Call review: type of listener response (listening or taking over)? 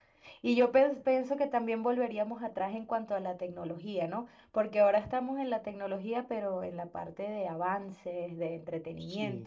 listening